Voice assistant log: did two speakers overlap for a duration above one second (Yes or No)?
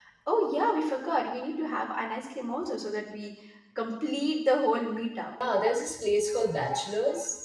No